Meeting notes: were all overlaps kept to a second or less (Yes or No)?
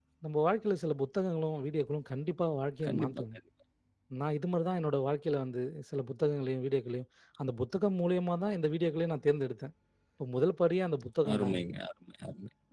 Yes